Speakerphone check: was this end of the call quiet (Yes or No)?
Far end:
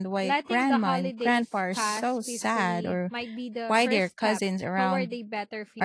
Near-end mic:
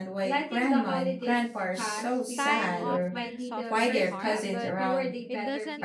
No